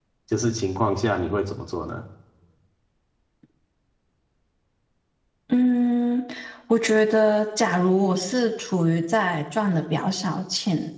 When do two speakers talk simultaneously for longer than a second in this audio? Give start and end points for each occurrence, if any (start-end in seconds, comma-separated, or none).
none